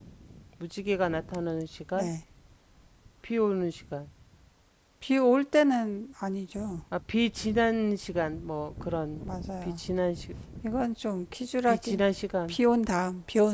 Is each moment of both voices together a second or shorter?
Yes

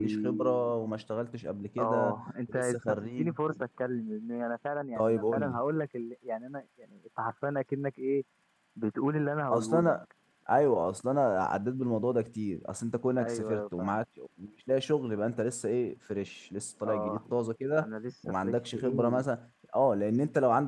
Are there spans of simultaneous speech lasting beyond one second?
Yes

